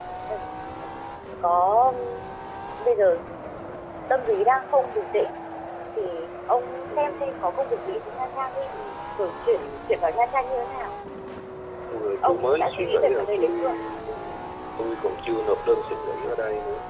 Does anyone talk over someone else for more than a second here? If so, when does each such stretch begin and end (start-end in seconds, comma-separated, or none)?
12.2-13.6